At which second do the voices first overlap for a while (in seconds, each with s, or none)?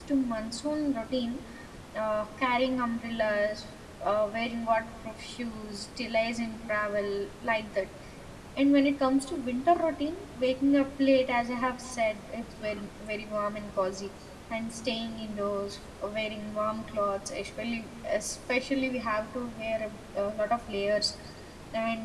none